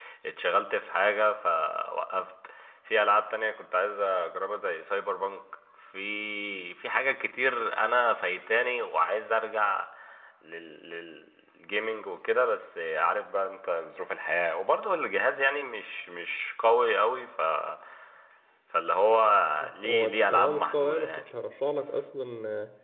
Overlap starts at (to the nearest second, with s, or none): 20 s